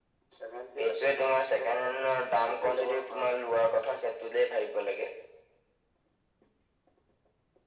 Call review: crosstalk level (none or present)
present